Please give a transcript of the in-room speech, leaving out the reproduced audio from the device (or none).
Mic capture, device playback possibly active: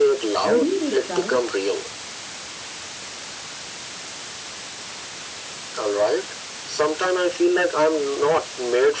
Would he be proud,